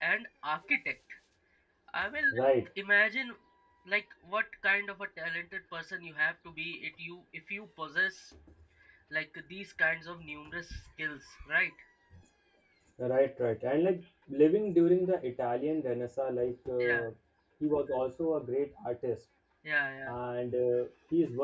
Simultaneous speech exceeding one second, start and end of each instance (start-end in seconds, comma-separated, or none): none